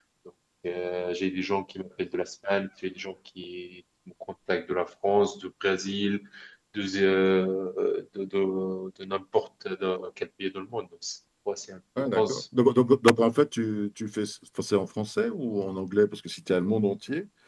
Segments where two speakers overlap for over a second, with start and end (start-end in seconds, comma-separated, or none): none